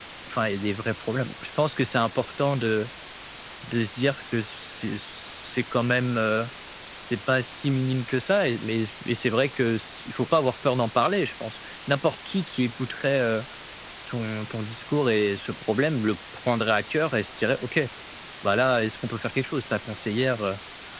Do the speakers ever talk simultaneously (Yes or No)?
No